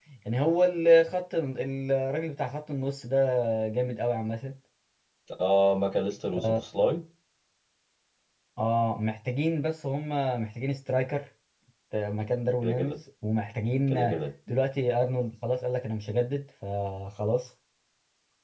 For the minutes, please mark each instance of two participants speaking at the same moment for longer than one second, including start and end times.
none

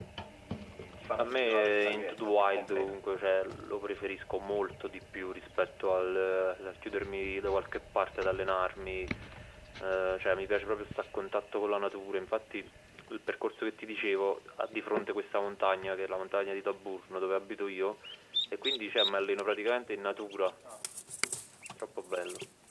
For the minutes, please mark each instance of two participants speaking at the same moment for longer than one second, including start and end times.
1.2-3.0

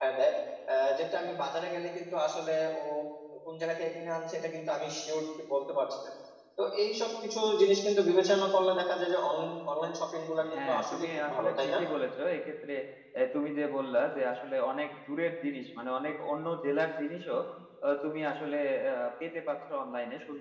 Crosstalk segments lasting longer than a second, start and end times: 10.5-11.8

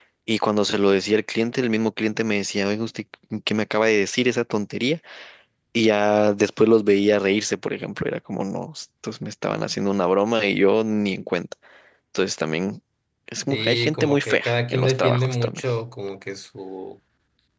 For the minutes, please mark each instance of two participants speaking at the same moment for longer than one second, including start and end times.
13.5-15.6

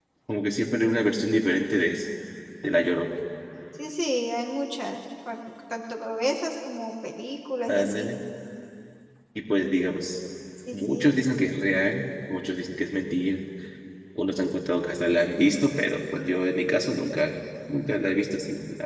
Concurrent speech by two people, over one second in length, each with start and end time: none

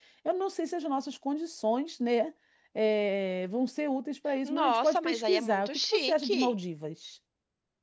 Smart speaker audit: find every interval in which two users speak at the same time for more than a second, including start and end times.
4.4-6.5

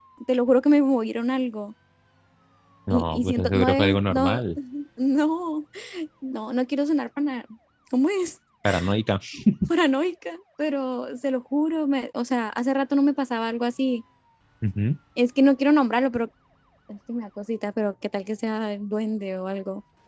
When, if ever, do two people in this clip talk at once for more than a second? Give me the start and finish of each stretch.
2.9-4.4

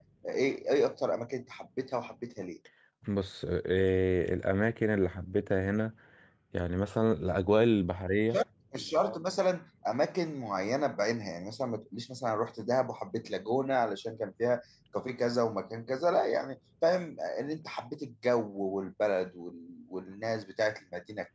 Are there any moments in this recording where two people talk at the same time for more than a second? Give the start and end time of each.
none

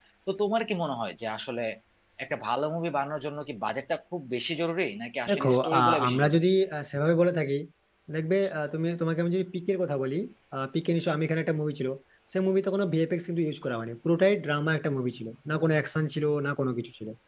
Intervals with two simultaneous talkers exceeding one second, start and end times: 5.3-6.5

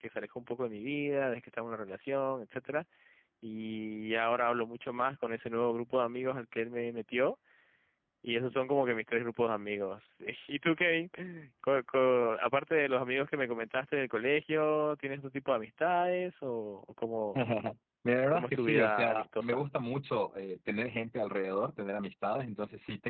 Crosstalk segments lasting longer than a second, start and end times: 18.3-19.6

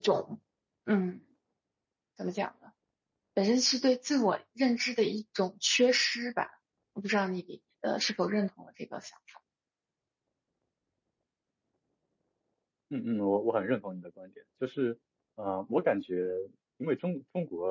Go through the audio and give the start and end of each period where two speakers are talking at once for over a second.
none

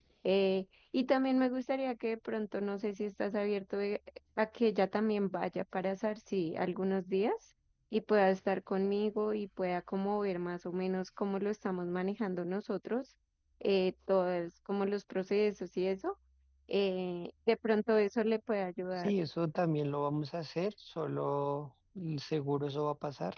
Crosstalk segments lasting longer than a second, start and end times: none

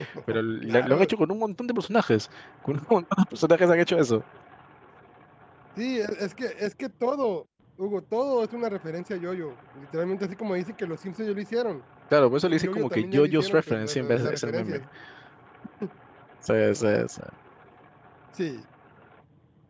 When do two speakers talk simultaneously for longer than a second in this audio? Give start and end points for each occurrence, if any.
12.4-14.8

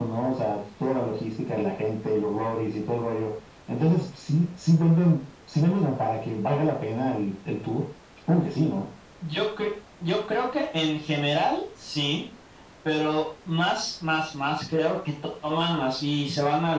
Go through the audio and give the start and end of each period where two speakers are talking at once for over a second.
none

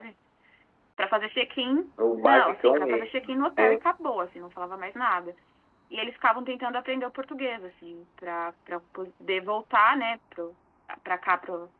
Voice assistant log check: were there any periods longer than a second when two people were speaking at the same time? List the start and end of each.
2.2-3.8

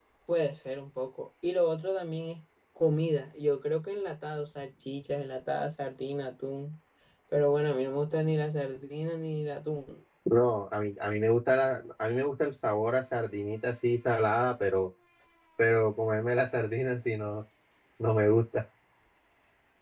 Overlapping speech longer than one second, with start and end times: none

